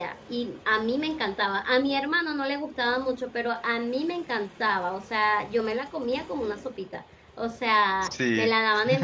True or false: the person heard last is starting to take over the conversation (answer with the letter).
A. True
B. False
B